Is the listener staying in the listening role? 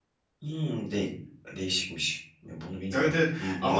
No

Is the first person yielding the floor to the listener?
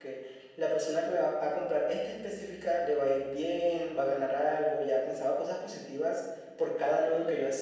No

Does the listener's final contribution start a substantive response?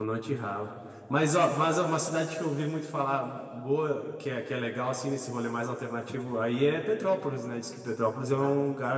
Yes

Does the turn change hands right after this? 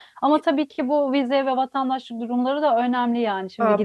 Yes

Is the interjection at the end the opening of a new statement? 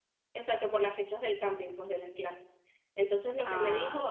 No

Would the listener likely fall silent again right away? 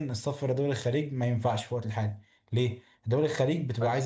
Yes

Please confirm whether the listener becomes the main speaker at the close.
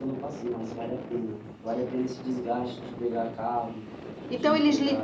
Yes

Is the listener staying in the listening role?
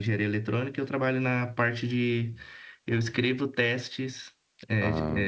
Yes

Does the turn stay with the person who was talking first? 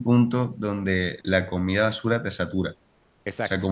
Yes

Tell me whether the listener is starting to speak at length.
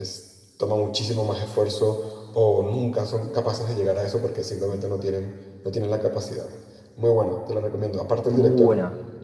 No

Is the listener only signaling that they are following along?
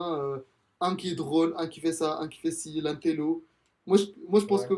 Yes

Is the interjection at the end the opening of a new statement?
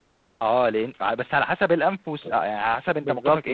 Yes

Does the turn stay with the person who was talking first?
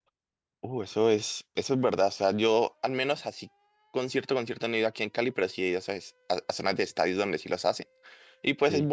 Yes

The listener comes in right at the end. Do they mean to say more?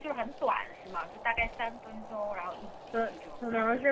Yes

